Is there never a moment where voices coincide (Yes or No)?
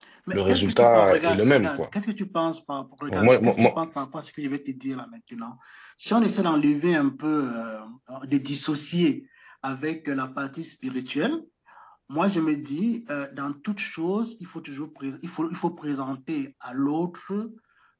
No